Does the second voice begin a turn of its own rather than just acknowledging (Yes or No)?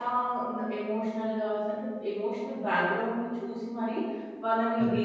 No